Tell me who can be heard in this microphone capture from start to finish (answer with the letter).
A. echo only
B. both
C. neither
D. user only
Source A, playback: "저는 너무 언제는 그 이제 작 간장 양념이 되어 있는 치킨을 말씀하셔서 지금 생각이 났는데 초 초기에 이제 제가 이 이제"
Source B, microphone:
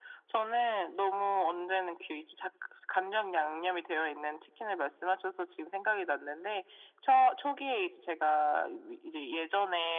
A